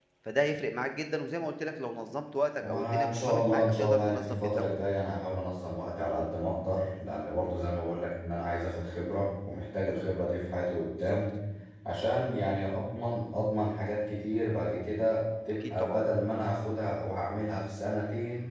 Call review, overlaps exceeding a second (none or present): present